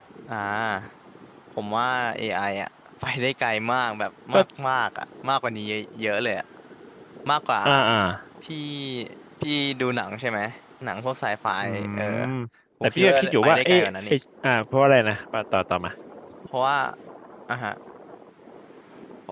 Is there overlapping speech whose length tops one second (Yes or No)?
Yes